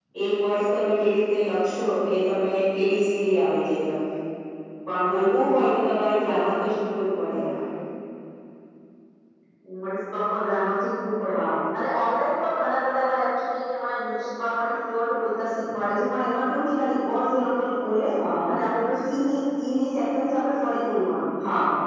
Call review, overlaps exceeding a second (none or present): none